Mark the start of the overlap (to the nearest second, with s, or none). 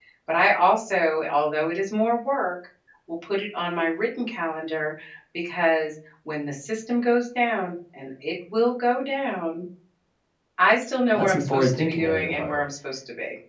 11 s